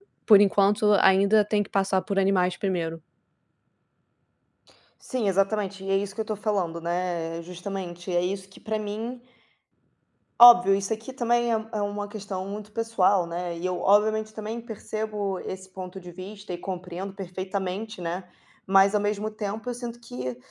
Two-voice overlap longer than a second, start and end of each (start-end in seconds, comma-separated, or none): none